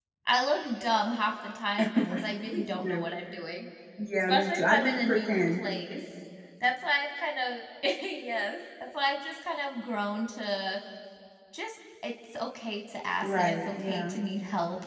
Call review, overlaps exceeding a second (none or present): present